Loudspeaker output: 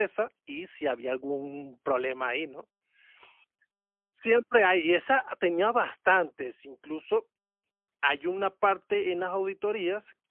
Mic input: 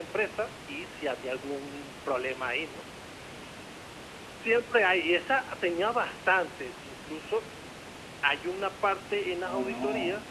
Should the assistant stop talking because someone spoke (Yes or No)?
Yes